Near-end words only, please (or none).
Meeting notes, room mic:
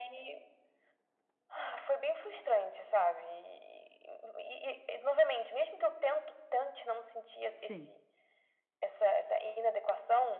Sim.